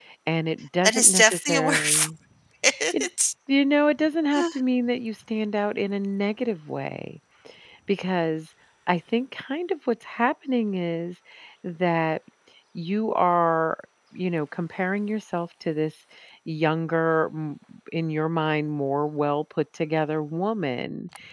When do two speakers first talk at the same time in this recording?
1 s

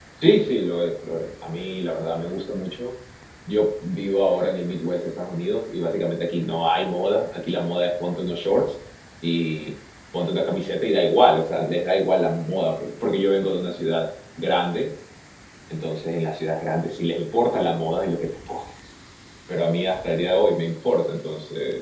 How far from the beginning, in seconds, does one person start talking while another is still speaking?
none

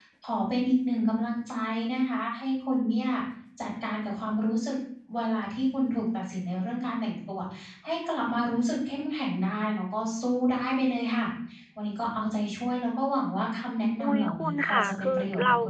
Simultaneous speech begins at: 14 s

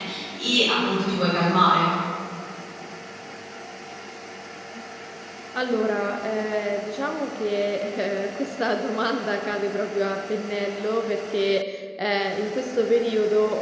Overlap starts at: none

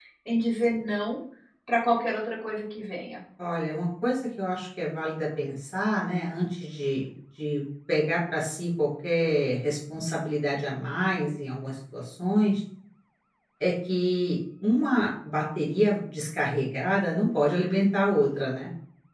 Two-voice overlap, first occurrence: none

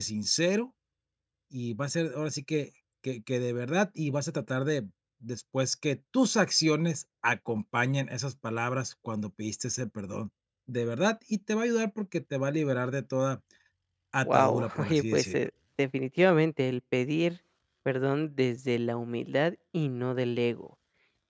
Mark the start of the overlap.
14 s

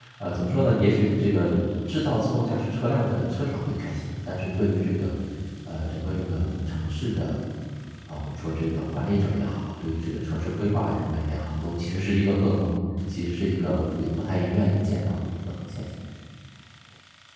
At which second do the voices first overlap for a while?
none

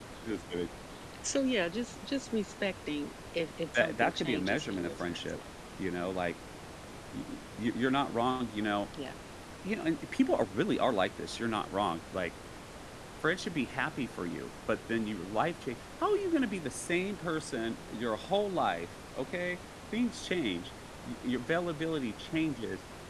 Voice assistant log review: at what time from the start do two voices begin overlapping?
4 s

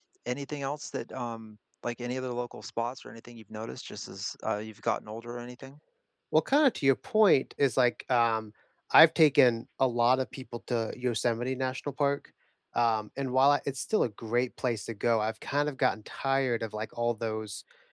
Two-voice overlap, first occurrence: none

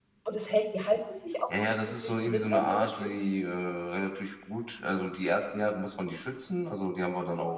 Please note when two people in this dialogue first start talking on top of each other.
1 s

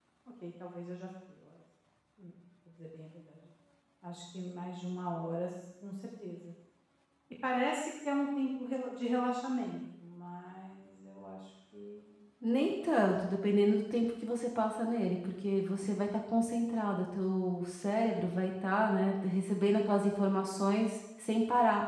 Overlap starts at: none

